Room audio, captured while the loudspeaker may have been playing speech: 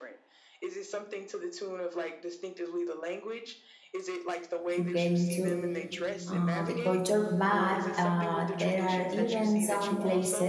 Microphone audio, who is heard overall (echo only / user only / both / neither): both